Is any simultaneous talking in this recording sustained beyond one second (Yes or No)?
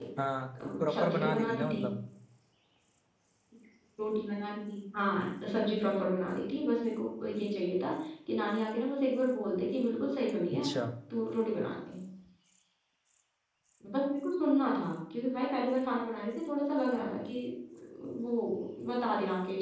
Yes